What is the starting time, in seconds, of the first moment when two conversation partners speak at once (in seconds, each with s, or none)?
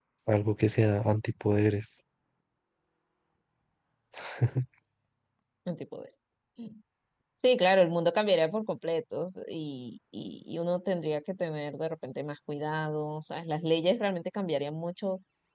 none